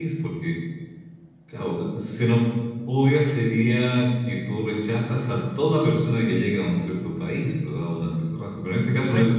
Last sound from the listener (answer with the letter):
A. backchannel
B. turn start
A